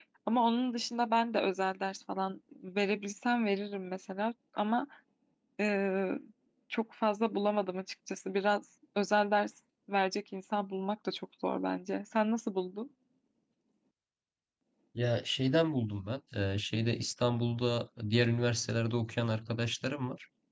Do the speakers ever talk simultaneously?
No

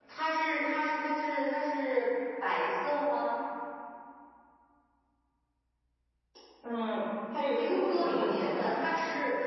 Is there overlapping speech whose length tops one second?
Yes, from 7.5 s

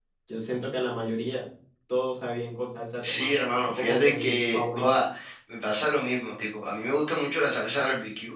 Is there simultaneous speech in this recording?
Yes, from 3.0 s

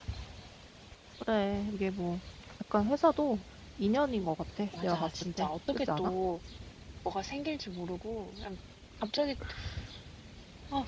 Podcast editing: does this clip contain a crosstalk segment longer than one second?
Yes, from 4.7 s

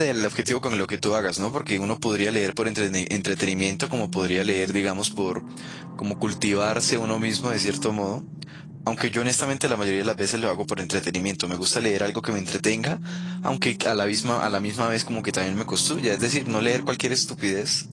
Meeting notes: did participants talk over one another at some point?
No

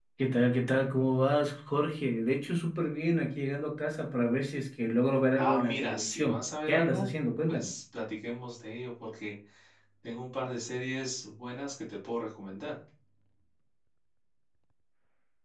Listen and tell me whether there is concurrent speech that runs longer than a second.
Yes, from 5.4 s

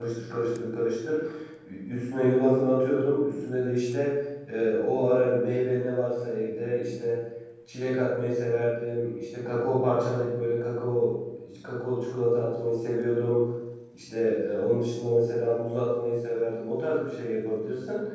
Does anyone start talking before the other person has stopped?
No

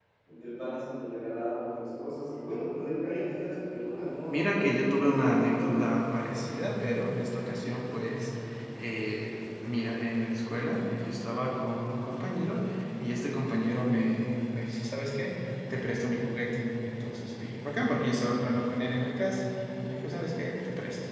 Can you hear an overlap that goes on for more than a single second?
Yes, from 4.3 s

